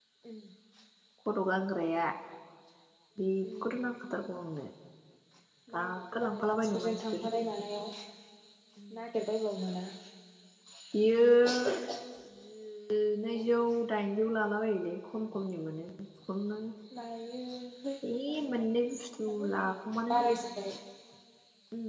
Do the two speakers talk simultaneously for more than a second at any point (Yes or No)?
Yes